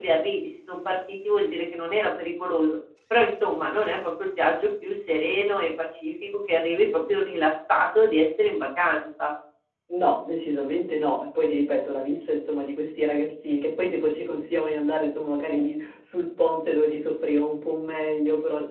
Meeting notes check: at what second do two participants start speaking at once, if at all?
none

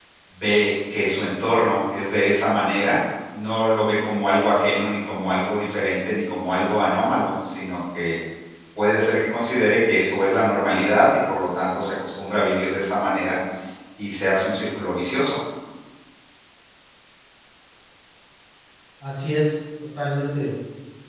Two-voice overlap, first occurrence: none

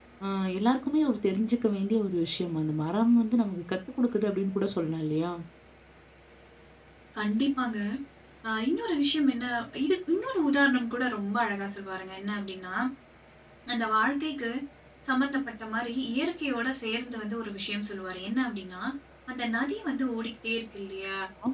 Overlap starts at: none

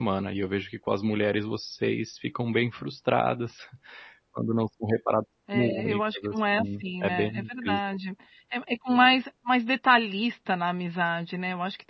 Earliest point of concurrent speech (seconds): 5 s

